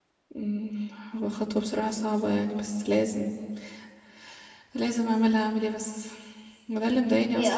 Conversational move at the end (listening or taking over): listening